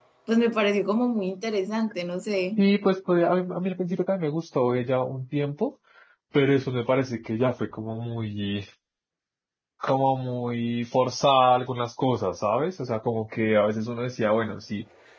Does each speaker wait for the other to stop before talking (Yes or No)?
Yes